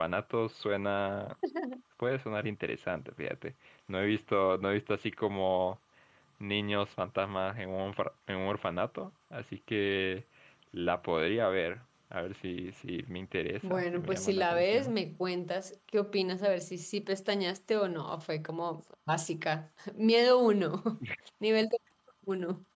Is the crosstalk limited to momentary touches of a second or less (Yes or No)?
No